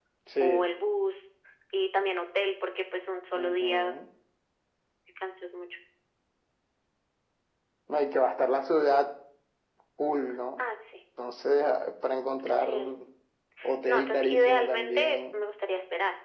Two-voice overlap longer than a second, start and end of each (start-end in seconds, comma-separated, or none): 13.8-15.3